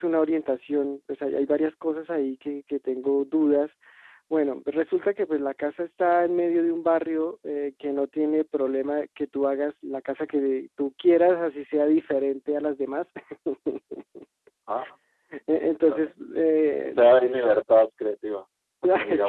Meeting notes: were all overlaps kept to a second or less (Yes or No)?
Yes